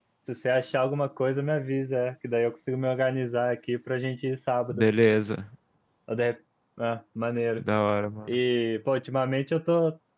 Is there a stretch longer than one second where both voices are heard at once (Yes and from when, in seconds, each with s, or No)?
No